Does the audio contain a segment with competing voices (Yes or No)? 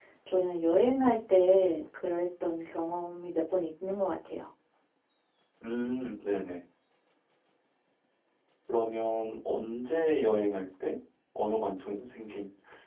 No